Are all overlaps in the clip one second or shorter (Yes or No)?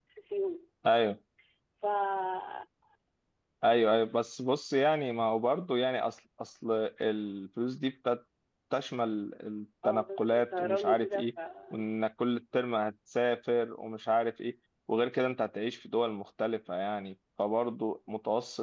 No